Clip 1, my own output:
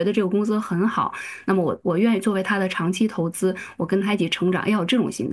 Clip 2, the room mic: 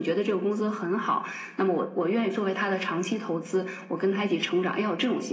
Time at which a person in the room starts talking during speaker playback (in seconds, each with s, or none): none